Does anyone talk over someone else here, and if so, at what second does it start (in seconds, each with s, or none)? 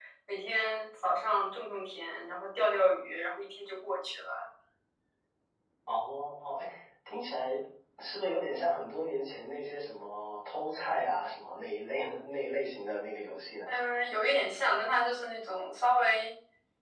none